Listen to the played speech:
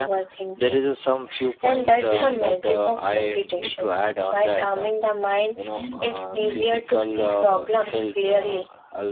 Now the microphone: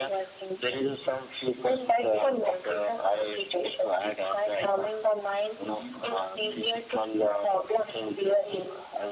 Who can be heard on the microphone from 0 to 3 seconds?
echo only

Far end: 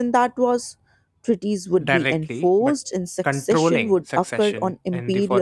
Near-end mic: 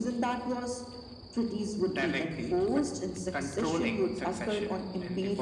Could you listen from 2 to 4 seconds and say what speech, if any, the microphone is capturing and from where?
echo only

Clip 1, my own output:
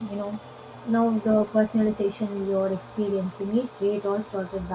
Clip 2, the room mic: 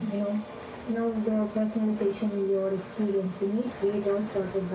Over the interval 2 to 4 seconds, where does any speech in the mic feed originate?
echo only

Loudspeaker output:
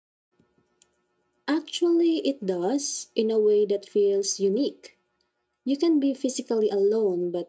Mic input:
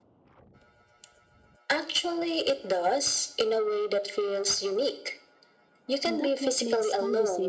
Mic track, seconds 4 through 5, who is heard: echo only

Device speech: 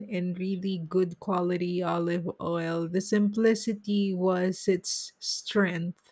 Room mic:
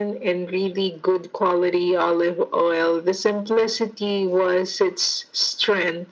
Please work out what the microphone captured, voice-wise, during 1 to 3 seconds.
echo only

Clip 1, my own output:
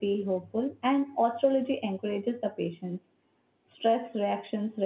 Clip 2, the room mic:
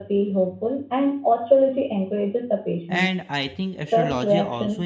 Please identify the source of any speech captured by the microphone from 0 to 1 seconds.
echo only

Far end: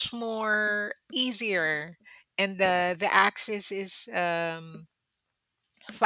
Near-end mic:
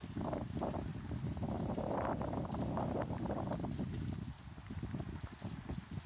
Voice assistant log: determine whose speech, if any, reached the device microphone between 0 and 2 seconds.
neither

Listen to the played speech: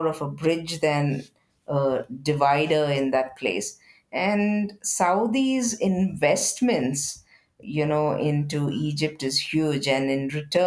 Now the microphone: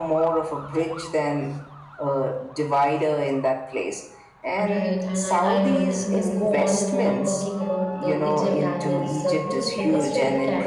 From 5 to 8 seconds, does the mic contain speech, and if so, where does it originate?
both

